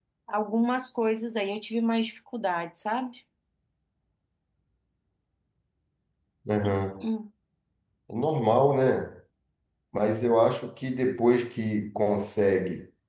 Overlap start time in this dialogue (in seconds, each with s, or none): none